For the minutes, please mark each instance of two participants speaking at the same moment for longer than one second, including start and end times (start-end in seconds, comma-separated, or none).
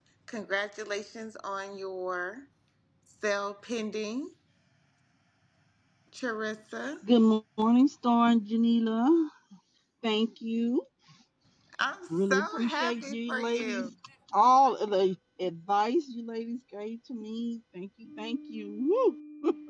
12.1-13.9